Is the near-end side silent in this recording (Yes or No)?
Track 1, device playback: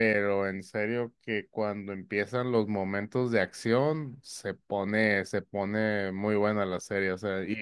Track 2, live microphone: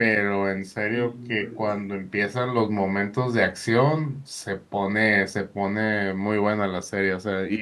No